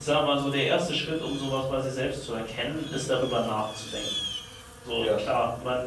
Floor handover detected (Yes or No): No